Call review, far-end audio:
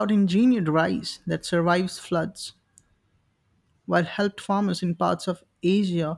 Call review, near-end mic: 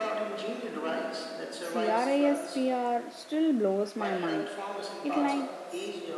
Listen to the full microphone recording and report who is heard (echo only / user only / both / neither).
both